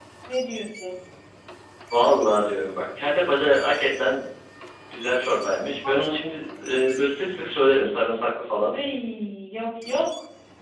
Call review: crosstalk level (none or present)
none